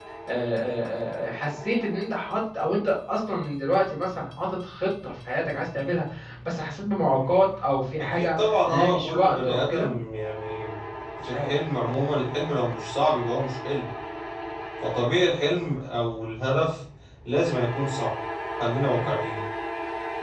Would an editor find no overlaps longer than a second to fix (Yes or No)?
No